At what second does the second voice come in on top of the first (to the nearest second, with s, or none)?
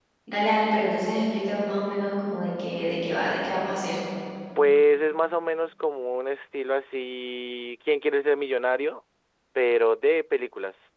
none